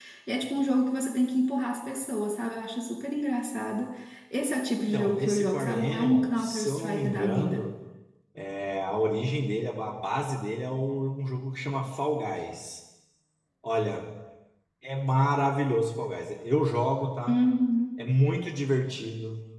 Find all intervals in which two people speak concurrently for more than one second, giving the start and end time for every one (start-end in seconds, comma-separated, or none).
4.8-7.7